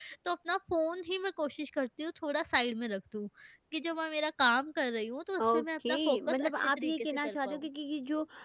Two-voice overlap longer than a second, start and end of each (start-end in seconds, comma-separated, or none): 5.4-7.7